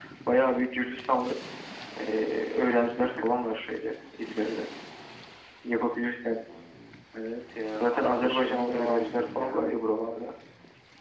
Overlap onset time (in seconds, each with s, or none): 7.7 s